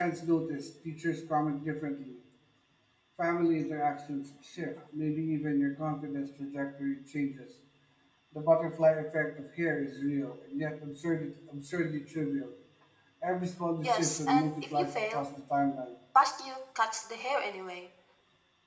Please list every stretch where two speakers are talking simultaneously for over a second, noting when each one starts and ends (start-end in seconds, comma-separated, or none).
13.8-15.2